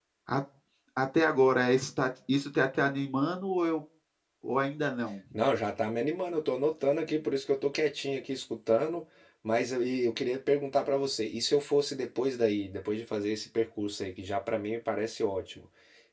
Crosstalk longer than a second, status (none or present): none